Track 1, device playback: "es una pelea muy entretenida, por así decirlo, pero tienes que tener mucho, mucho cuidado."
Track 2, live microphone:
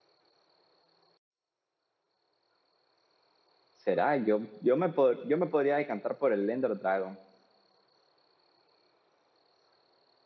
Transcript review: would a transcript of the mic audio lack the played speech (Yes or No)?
Yes